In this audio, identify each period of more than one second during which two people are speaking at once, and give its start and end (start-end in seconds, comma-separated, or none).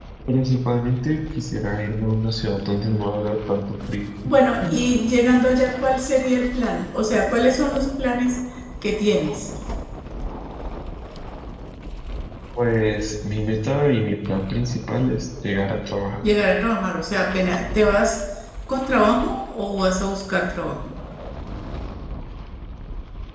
none